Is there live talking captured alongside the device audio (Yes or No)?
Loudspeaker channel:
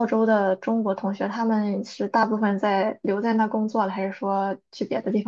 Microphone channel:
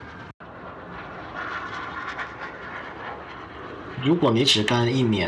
Yes